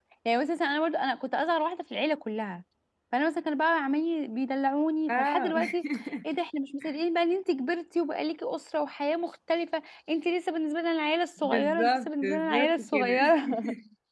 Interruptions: present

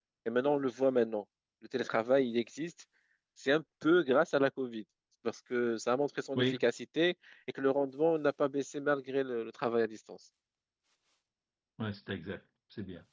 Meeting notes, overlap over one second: none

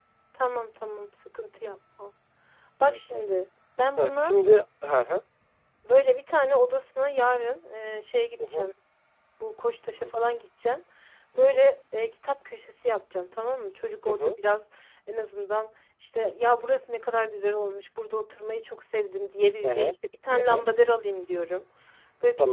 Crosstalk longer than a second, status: none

